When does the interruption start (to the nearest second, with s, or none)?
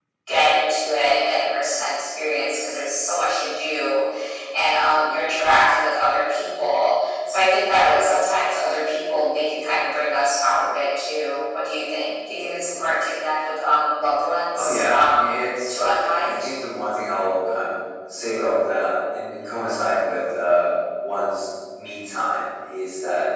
15 s